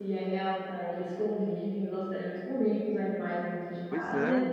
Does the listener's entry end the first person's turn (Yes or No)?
No